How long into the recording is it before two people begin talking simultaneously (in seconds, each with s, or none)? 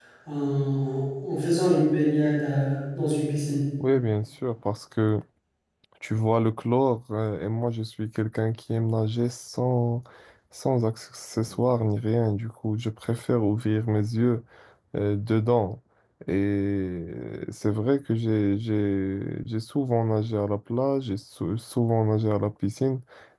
none